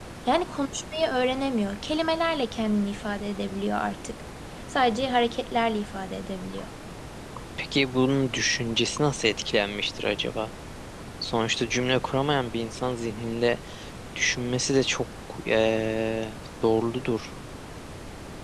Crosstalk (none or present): none